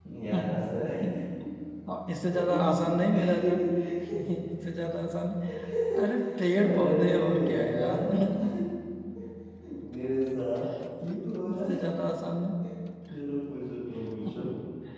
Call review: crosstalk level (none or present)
present